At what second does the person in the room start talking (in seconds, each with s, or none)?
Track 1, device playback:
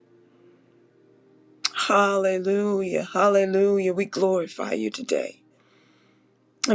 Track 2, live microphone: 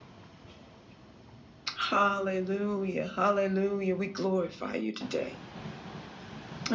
none